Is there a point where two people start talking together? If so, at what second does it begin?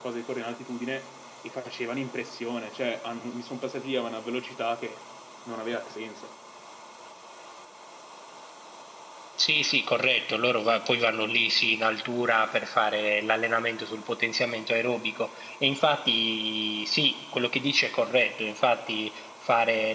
none

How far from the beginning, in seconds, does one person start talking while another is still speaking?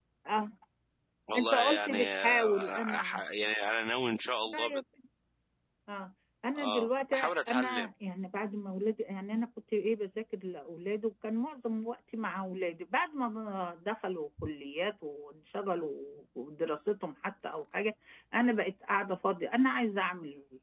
1.4 s

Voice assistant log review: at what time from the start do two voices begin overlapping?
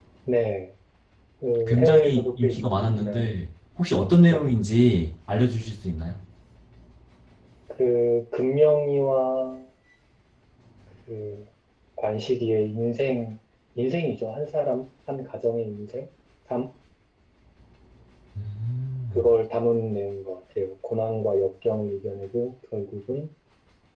1.7 s

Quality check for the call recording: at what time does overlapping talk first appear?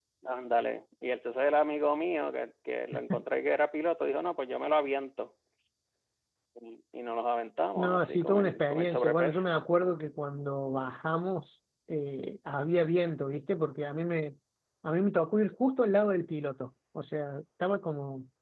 7.8 s

